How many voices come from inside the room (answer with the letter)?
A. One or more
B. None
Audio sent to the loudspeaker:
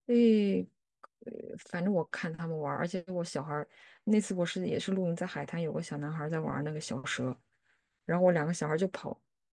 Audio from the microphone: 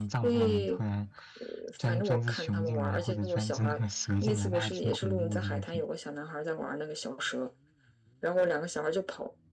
A